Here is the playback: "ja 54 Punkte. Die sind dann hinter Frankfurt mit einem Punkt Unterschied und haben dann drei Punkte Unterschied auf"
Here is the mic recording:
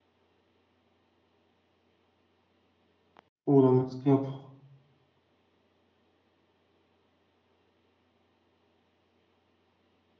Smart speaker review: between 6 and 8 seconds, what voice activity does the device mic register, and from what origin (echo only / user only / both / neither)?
neither